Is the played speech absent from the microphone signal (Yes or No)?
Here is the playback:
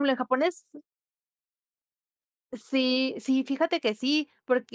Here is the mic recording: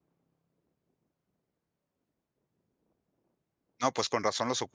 Yes